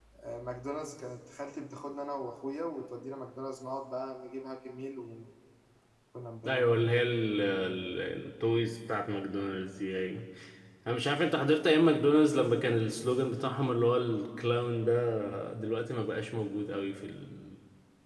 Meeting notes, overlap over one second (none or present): none